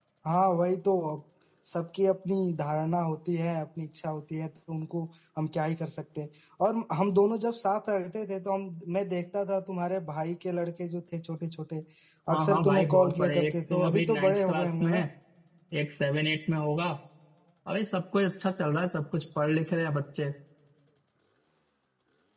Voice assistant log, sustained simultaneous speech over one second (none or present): present